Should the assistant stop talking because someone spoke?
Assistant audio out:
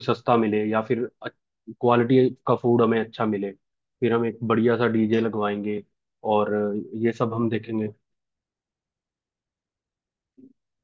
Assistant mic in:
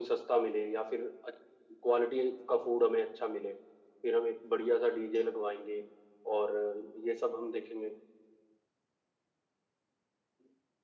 No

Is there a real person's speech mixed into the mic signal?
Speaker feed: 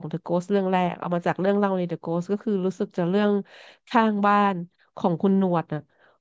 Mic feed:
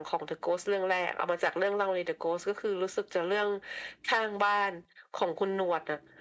No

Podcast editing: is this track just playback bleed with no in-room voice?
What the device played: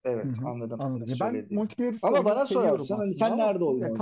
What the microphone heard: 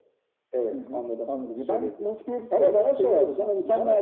Yes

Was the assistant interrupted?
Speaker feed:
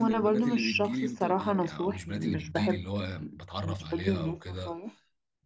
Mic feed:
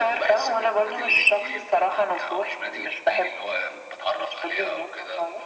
No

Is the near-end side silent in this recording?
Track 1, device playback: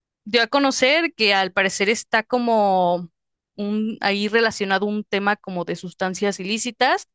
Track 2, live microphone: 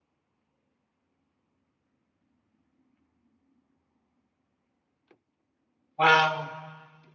No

